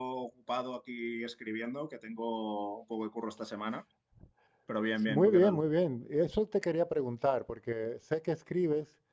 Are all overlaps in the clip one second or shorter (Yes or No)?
Yes